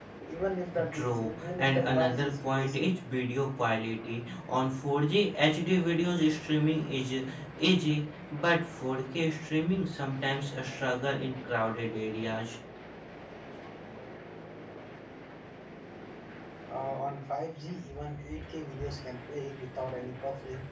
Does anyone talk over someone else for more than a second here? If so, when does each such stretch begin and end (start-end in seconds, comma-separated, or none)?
0.9-2.8